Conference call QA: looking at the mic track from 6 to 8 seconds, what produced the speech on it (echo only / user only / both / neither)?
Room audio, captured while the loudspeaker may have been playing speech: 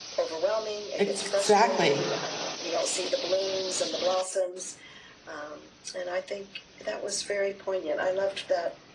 echo only